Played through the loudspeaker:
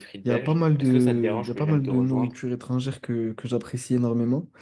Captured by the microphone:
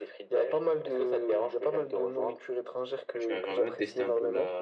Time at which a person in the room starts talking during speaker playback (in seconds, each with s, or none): 3.1 s